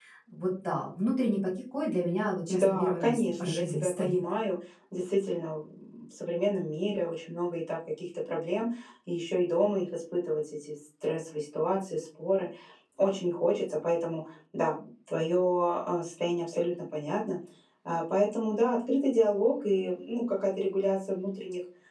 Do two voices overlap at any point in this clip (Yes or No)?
Yes